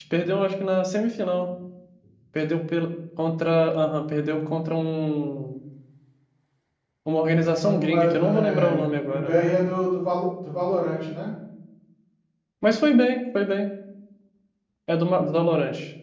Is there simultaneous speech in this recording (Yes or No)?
Yes